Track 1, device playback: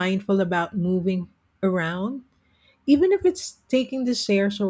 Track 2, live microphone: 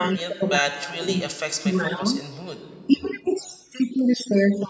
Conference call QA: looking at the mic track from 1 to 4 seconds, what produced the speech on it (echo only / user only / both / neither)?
both